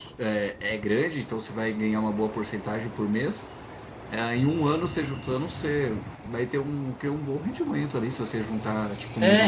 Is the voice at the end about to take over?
Yes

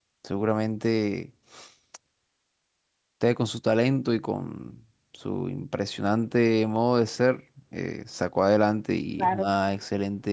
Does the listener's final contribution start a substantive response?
No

